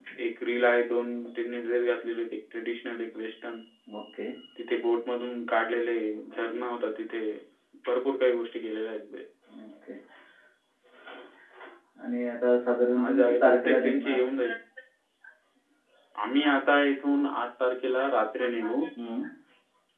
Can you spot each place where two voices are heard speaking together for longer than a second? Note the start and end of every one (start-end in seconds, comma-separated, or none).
13.0-14.2